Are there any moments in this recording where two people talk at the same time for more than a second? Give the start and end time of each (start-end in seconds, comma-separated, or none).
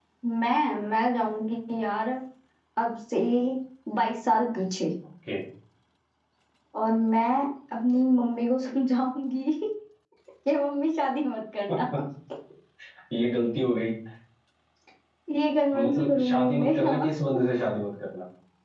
15.7-17.1